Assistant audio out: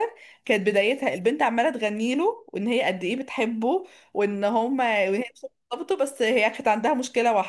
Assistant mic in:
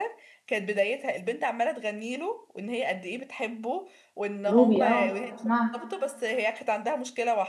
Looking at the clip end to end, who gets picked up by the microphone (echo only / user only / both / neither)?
both